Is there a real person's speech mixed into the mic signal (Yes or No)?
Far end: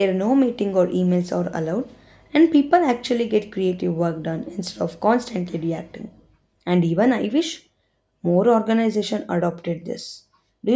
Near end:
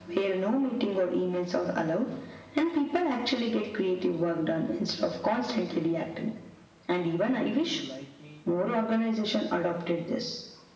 Yes